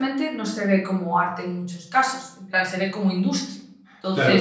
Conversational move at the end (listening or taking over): taking over